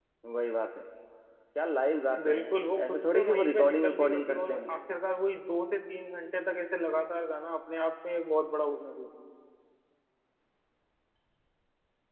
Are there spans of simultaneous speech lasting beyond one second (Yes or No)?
Yes